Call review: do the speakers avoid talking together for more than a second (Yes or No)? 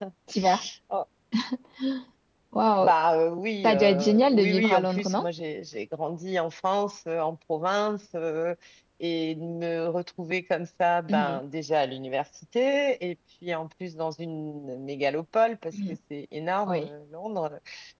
No